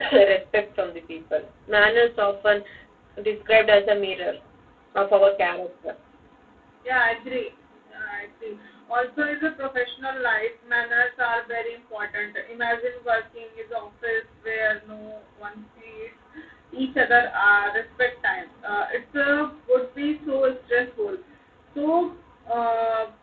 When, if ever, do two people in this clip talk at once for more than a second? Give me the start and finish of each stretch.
none

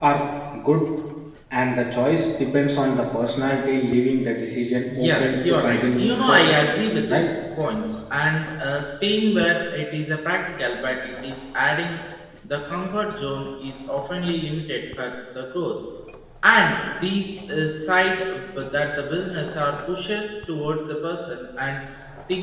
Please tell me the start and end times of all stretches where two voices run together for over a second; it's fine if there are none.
5.0-6.6

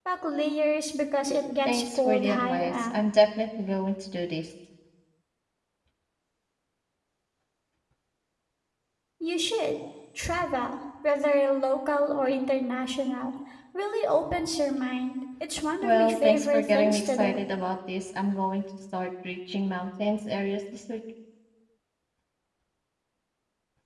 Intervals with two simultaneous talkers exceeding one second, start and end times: 1.6-2.9, 15.8-17.4

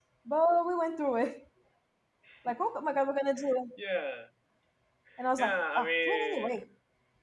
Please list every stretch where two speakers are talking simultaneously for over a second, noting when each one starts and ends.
5.4-6.6

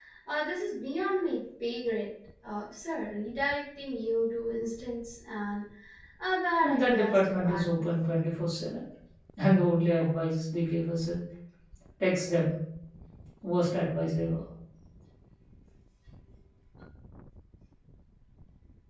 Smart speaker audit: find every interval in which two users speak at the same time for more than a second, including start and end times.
6.6-8.0

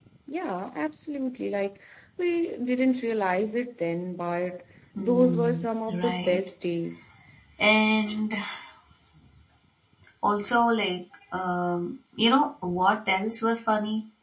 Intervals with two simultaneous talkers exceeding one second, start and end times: 5.0-6.4

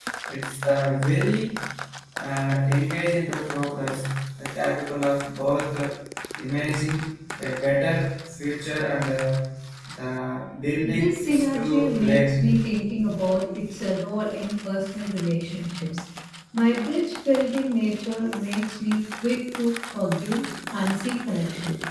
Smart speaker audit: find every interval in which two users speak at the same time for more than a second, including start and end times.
10.8-12.4

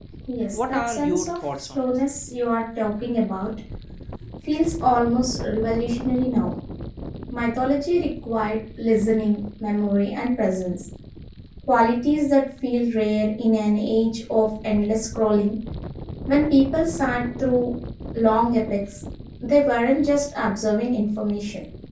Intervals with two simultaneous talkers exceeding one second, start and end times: 0.5-1.9

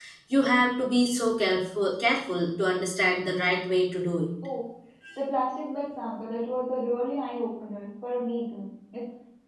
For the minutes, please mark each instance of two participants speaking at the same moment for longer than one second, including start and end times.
none

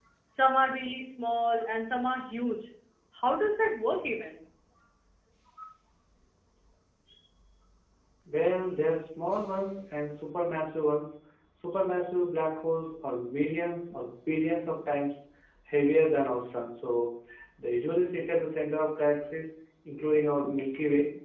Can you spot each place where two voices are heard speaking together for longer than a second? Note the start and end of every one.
none

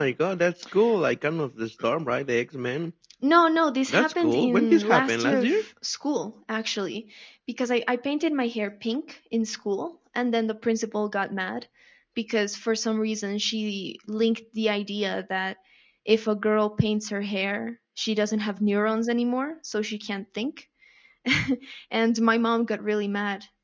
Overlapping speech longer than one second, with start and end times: 3.9-5.6

